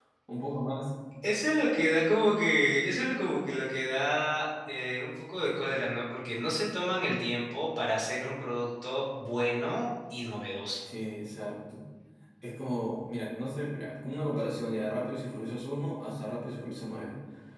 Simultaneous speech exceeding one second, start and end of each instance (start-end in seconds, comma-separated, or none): none